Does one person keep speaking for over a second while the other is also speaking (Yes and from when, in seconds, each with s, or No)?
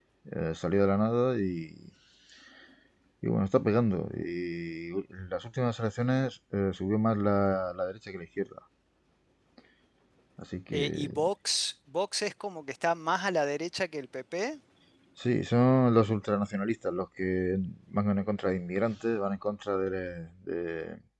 No